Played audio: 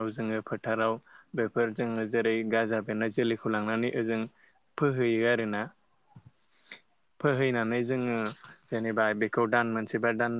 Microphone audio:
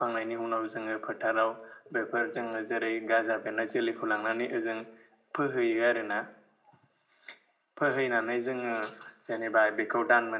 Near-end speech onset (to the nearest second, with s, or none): none